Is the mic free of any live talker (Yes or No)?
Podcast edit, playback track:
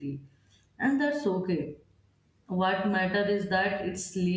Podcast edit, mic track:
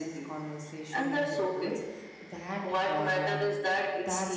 No